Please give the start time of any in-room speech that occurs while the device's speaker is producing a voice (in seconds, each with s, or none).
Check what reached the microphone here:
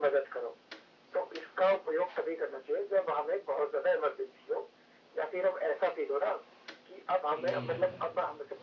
7.4 s